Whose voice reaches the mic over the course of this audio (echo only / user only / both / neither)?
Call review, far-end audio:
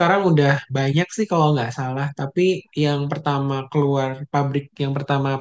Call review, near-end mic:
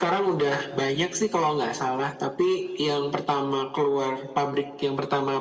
echo only